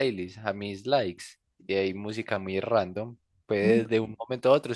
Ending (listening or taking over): listening